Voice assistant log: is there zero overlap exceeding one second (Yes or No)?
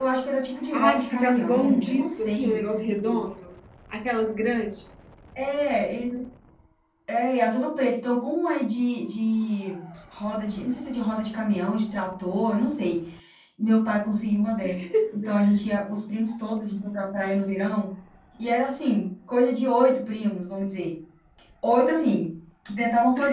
No